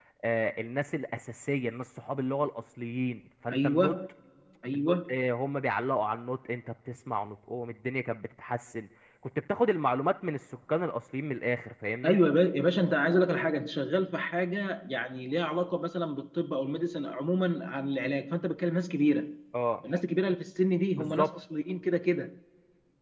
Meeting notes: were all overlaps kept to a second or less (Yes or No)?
Yes